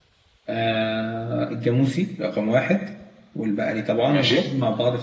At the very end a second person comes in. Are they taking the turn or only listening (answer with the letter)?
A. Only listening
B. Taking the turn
A